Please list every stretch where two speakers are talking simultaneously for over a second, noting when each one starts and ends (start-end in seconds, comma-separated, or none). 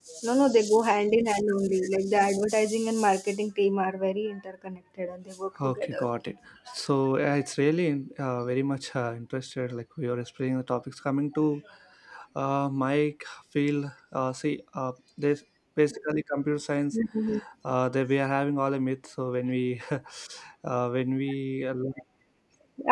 none